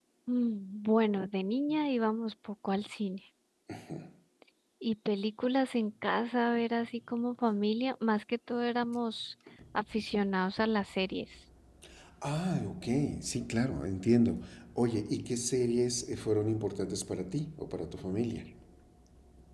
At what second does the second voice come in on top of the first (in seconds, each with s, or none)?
none